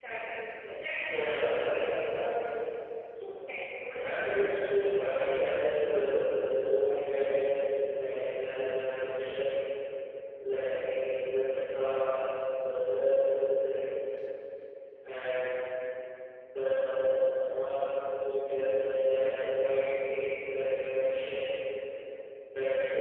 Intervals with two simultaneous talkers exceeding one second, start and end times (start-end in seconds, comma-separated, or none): 3.9-6.2